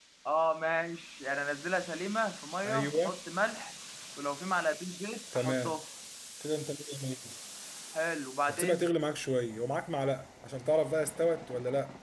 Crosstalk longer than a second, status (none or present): none